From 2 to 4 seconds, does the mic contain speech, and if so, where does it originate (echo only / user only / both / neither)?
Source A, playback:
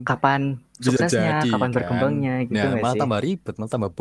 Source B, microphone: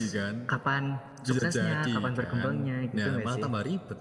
echo only